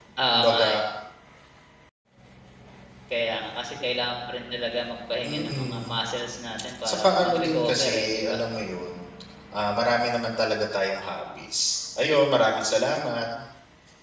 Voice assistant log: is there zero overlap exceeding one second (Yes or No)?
No